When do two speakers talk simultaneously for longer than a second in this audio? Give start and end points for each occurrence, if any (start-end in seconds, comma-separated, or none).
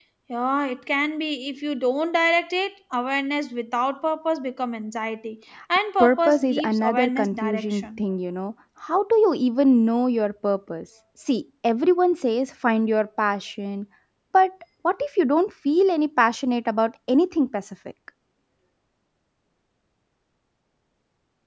6.0-8.0